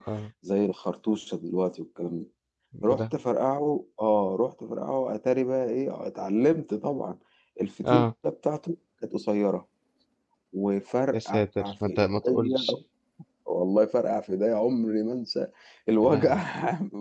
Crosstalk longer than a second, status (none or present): present